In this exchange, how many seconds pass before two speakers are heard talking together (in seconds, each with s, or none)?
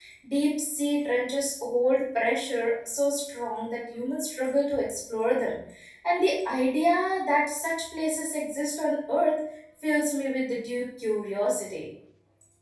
none